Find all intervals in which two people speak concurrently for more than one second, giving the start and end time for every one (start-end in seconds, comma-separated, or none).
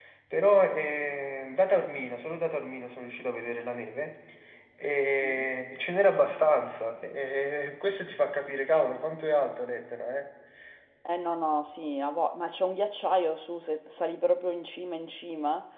none